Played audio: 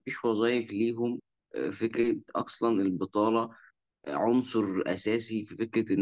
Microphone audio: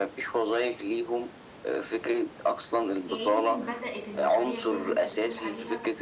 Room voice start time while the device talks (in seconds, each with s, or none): 3.1 s